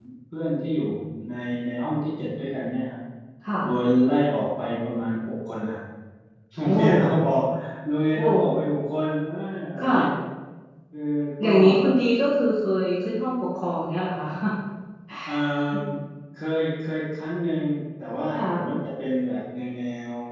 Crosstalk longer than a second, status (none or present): none